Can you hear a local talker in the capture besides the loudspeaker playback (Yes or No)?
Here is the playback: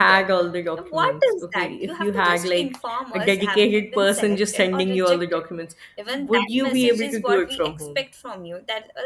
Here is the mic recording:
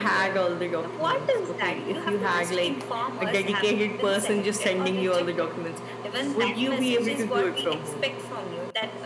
No